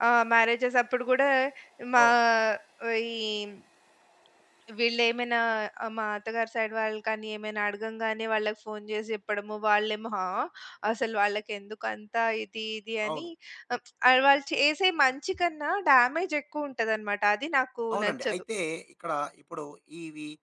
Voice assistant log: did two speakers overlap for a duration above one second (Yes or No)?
No